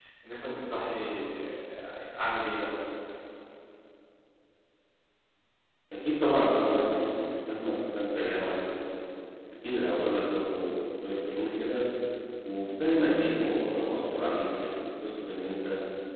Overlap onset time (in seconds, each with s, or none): none